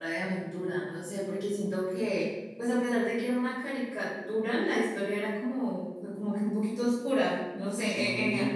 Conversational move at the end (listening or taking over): listening